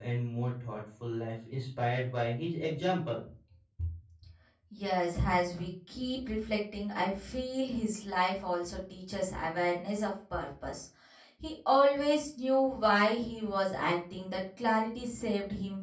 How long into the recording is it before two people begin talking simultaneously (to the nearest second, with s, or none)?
none